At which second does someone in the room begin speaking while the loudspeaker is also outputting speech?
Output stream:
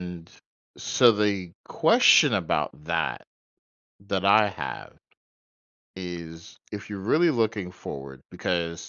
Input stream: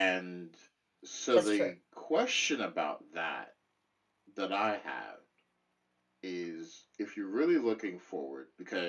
1 s

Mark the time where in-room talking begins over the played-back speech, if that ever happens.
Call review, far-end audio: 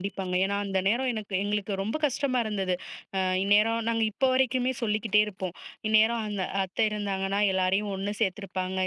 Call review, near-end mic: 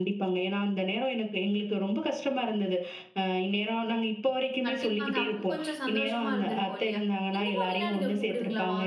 5 s

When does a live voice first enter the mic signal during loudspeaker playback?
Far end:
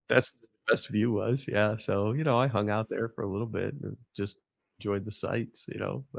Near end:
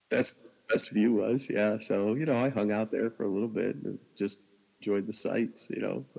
none

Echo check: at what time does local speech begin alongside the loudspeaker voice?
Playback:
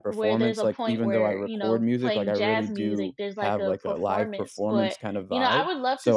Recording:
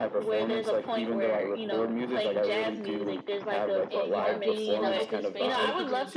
4 s

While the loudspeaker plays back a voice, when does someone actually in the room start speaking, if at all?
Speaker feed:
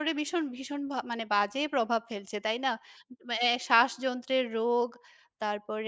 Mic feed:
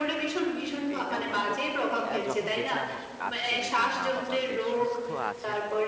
1 s

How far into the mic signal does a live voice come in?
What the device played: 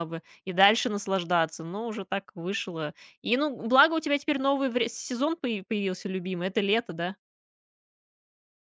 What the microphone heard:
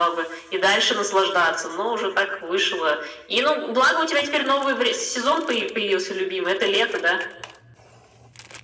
none

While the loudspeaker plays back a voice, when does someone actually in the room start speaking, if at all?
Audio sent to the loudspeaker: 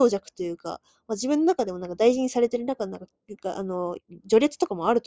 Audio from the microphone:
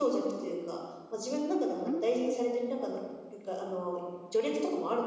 2 s

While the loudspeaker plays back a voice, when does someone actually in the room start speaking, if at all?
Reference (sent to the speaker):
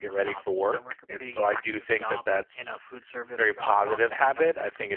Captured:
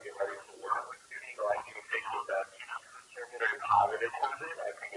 none

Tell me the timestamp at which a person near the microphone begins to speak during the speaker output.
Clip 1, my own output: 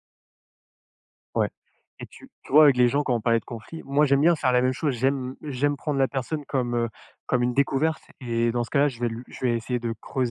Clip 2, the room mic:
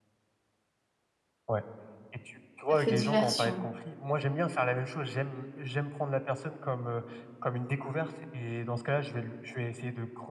3 s

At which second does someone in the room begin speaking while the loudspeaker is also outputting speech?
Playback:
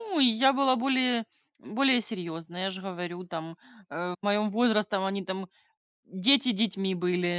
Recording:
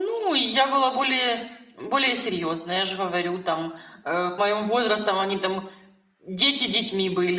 none

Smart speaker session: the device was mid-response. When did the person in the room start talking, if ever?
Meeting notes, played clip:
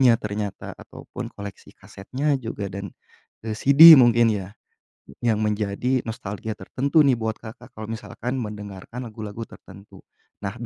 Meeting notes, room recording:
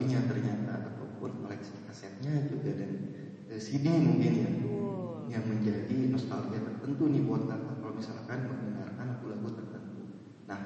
4 s

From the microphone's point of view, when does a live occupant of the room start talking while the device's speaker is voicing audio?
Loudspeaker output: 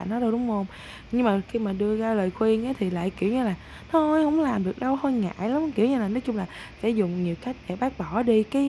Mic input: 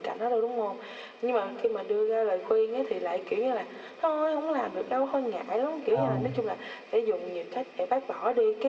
6 s

